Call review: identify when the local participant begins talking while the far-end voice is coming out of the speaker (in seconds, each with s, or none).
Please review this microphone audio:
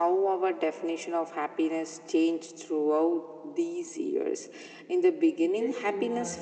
5.4 s